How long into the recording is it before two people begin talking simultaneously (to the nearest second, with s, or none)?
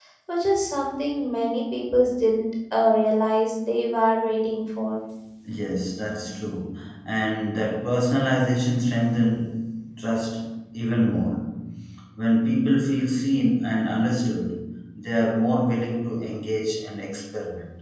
none